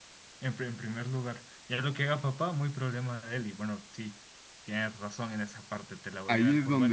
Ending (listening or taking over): taking over